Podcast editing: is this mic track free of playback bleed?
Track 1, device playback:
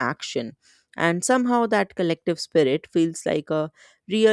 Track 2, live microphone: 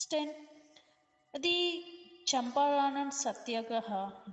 Yes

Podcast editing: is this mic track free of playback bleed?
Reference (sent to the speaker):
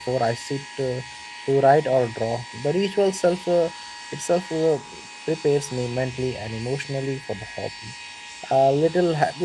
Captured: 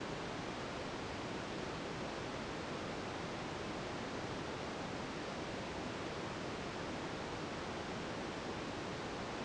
Yes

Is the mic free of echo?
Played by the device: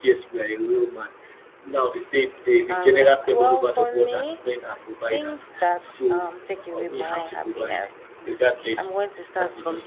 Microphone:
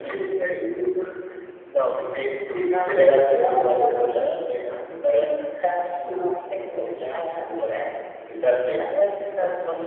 No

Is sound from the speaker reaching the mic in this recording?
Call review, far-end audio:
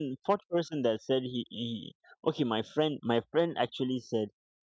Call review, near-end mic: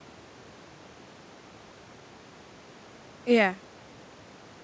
No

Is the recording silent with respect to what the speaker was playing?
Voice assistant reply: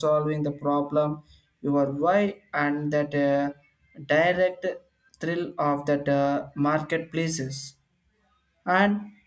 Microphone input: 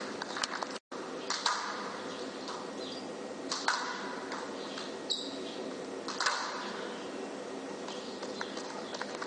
Yes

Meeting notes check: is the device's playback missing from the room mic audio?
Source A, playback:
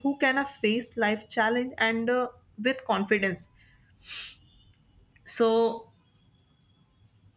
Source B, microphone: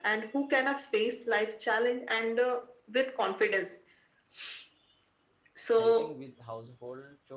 No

